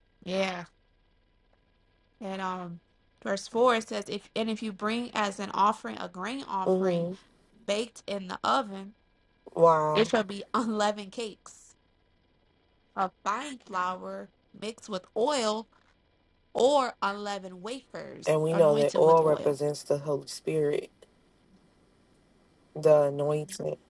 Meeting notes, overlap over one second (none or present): present